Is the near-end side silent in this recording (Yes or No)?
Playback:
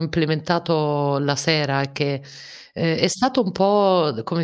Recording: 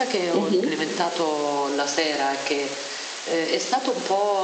No